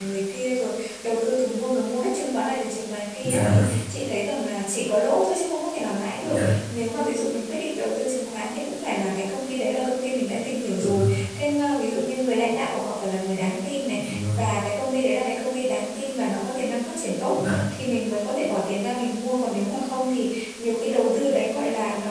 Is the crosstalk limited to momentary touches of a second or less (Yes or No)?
Yes